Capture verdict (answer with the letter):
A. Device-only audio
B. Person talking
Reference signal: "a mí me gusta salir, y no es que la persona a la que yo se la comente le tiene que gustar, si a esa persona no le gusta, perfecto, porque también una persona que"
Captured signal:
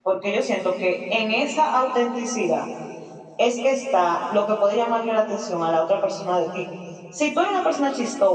B